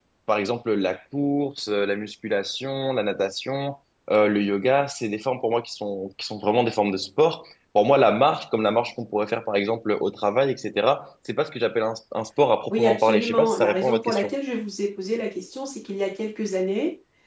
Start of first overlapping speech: 13 s

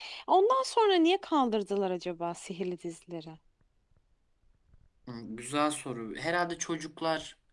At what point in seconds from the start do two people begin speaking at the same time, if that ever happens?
none

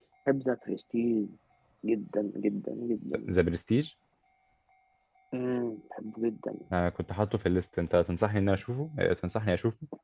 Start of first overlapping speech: none

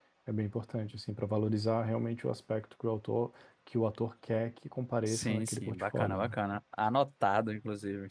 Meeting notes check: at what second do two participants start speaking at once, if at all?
5 s

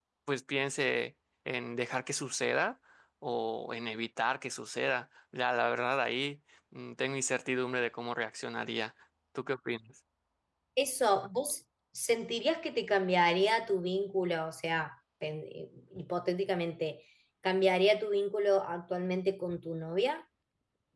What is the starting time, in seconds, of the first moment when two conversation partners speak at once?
none

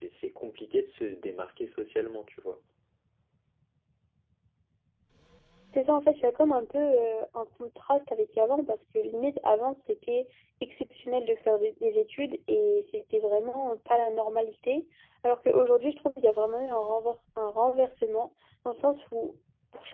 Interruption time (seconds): none

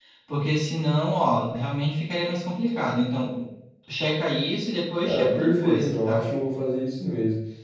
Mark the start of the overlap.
5 s

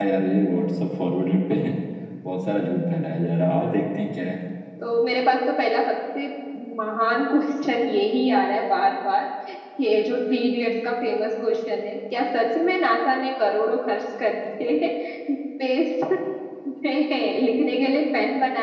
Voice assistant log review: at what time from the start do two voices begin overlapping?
none

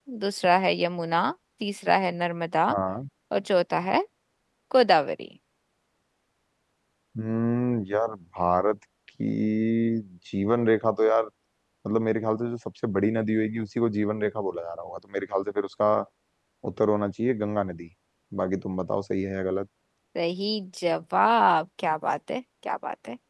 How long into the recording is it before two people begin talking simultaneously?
none

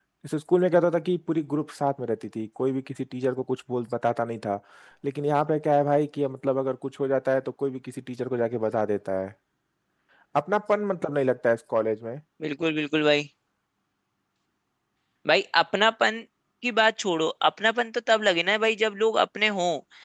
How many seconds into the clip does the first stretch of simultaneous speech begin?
none

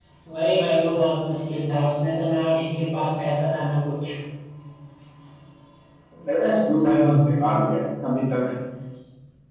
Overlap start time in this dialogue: none

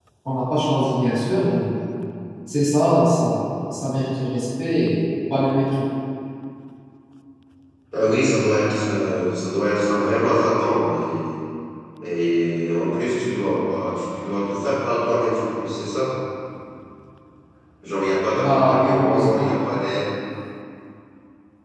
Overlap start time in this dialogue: 18 s

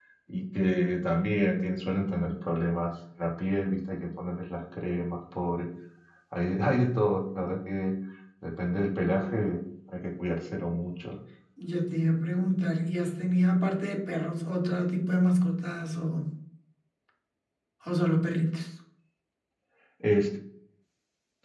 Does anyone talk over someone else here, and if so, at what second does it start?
none

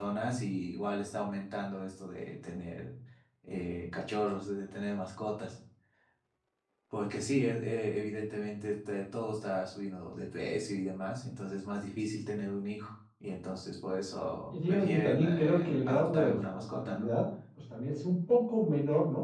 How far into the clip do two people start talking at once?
15 s

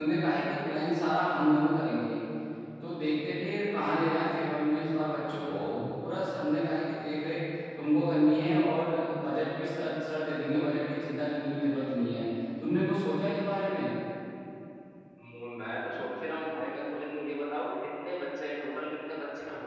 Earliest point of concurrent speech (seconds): none

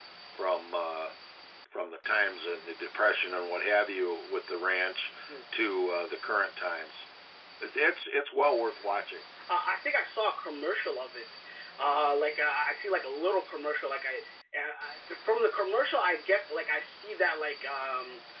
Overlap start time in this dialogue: none

